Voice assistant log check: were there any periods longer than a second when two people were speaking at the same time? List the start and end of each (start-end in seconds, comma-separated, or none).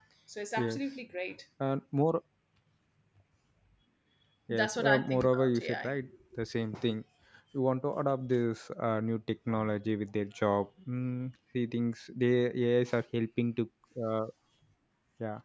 4.5-5.9